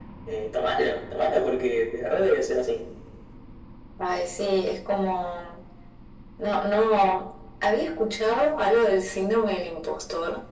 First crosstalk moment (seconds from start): none

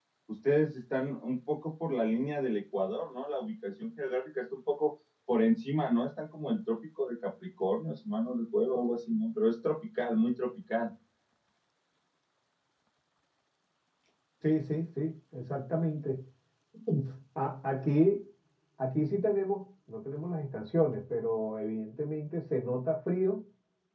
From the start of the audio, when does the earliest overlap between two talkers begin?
none

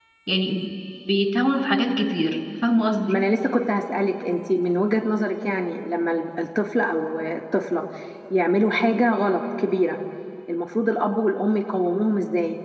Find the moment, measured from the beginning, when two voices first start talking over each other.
none

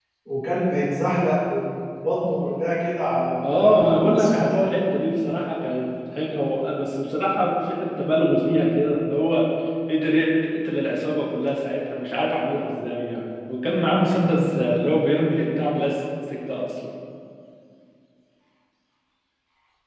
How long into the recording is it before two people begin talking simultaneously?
3.4 s

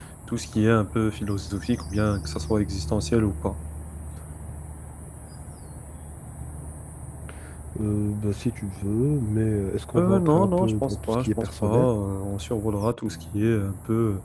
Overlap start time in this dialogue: 9.9 s

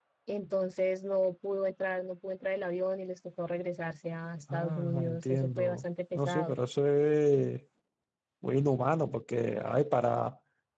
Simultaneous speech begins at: 4.5 s

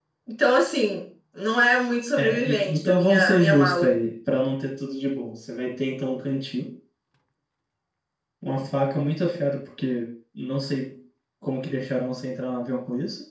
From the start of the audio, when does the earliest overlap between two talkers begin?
2.2 s

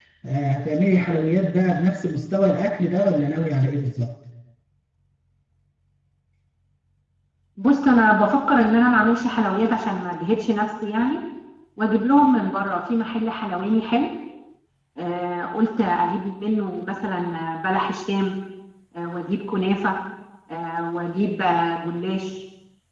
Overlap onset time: none

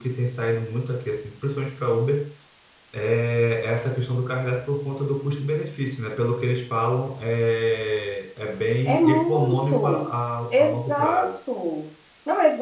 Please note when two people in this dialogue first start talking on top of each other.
8.9 s

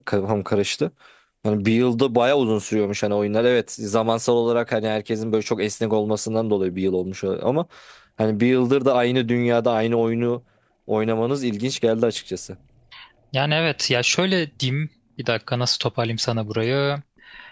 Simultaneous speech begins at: none

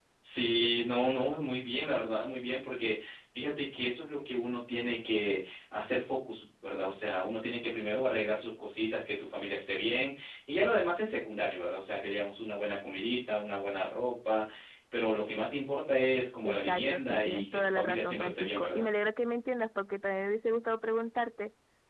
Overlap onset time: 16.4 s

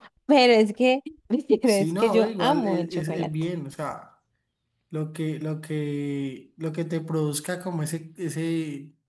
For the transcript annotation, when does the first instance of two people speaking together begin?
1.7 s

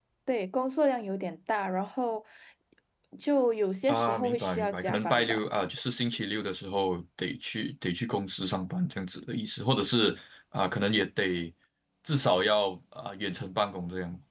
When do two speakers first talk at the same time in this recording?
3.9 s

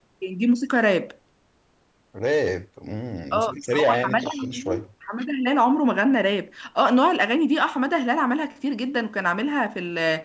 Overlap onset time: 3.3 s

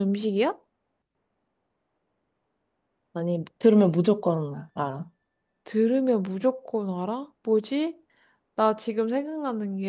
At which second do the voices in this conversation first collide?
none

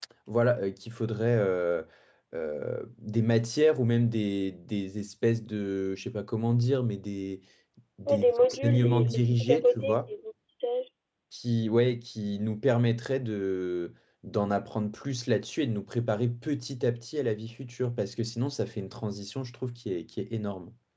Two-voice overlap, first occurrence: 8.1 s

